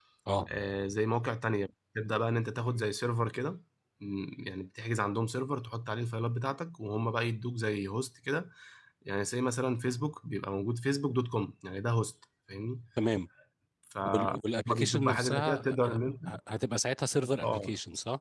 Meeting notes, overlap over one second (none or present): present